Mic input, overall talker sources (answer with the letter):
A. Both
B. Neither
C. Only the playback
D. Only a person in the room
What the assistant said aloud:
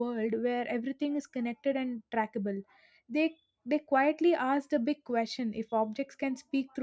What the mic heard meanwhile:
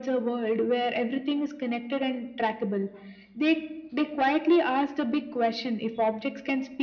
C